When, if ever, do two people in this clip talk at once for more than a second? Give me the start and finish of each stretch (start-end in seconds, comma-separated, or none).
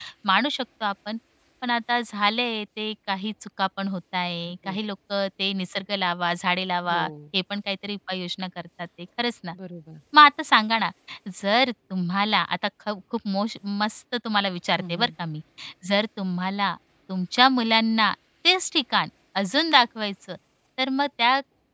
none